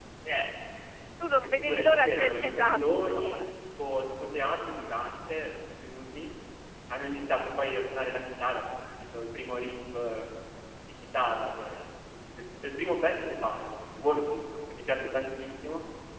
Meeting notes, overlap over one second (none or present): present